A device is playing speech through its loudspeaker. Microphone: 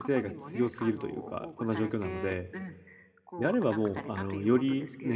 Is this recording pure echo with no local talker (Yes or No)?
No